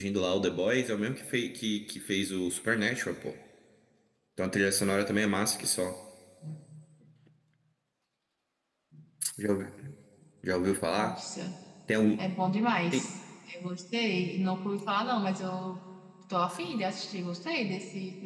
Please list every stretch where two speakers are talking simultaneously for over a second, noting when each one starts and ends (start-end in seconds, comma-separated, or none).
none